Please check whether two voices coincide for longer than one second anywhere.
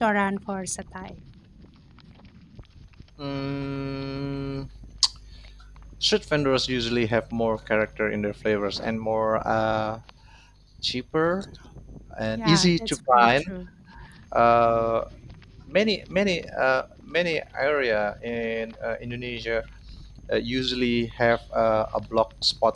Yes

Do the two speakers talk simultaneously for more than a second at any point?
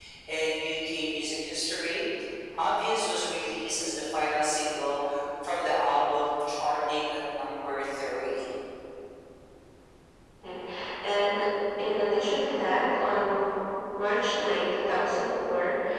No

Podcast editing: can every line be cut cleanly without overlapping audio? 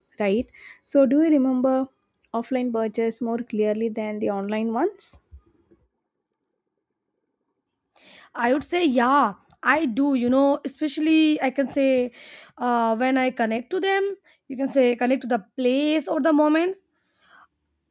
Yes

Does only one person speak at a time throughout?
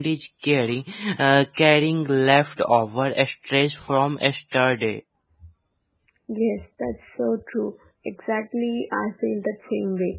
Yes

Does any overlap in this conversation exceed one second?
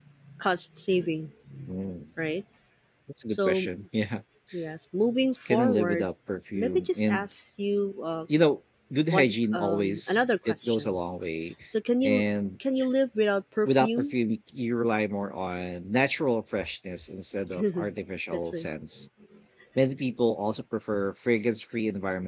Yes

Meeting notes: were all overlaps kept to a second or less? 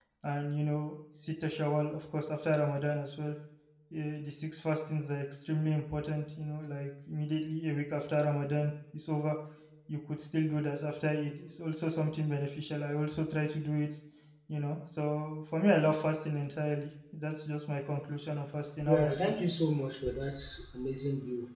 Yes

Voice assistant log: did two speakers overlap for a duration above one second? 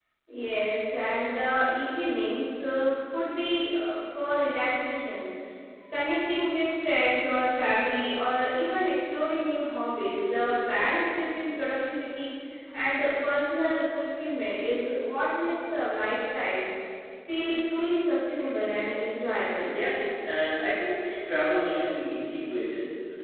No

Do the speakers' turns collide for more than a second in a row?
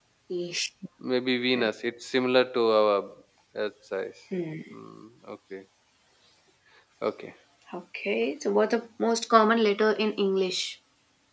No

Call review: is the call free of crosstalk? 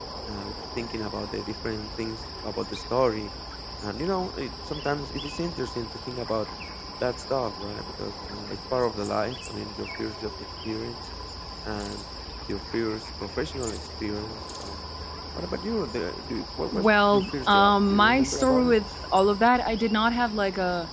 No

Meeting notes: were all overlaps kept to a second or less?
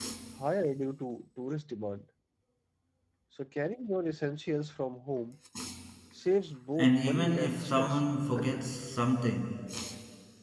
No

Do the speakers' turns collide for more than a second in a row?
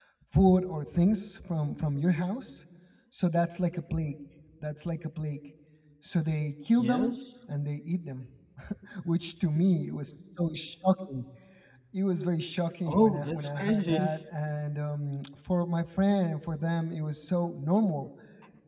Yes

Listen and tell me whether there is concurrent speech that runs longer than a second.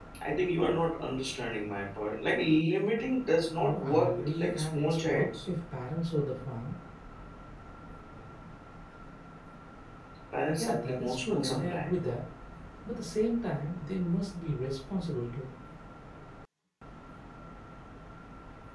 Yes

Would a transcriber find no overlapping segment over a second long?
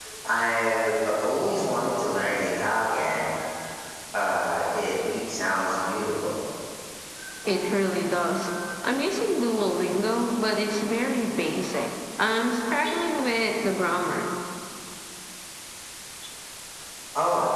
Yes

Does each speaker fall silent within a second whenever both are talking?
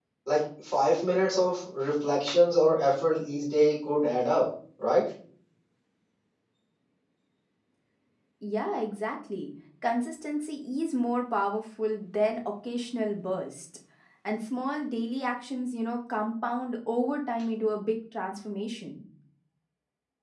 Yes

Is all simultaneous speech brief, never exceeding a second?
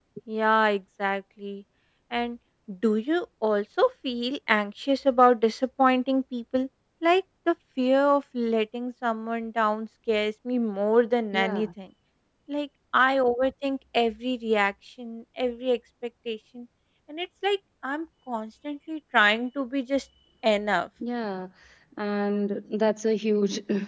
Yes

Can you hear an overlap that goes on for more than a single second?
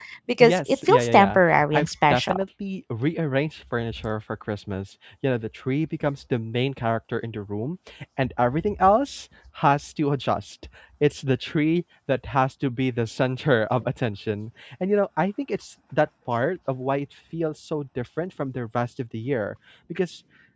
Yes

